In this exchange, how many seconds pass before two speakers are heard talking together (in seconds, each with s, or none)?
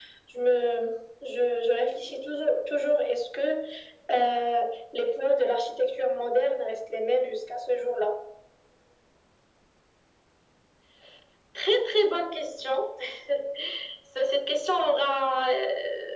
none